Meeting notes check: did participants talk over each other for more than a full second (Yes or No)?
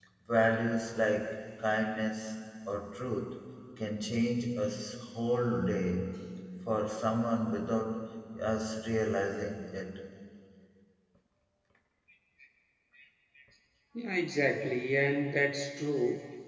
No